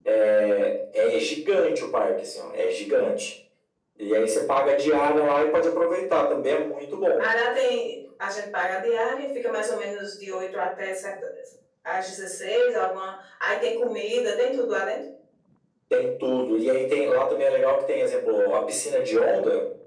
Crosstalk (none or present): none